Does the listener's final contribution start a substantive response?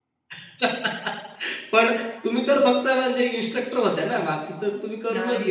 Yes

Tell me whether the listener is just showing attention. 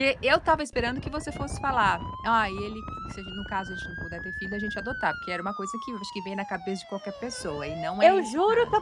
No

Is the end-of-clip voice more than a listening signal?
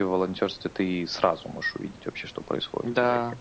Yes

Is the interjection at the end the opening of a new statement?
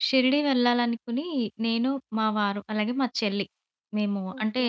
No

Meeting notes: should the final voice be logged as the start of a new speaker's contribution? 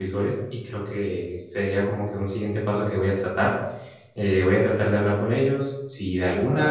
No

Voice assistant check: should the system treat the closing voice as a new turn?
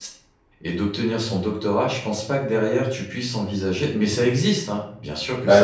Yes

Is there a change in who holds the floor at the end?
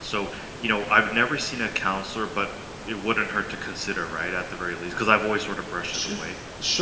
Yes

